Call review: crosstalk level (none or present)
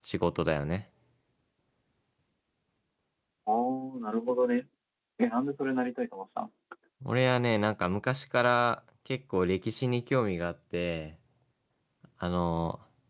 none